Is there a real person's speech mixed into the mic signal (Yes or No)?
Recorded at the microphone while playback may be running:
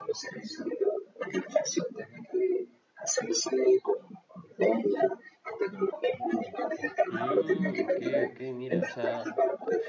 Yes